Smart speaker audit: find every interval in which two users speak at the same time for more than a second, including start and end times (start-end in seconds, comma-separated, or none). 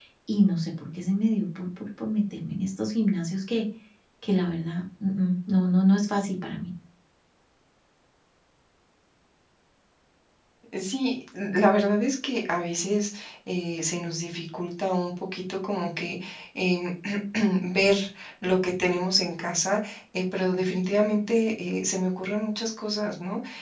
none